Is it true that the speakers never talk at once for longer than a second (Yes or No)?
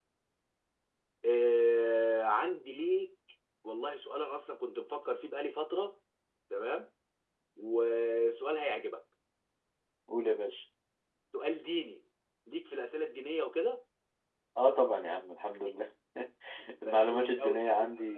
No